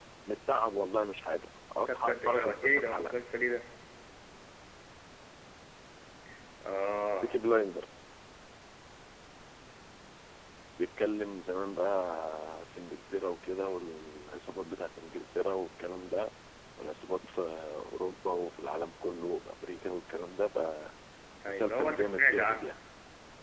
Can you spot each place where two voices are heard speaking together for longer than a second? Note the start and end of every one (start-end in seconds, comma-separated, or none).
1.9-3.1, 21.5-22.7